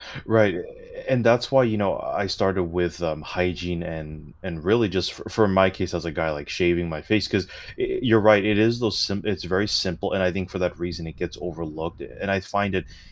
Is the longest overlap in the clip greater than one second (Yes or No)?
No